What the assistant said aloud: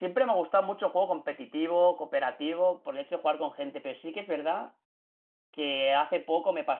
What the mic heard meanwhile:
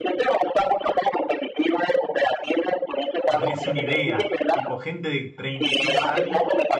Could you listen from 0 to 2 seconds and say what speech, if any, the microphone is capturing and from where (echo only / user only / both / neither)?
echo only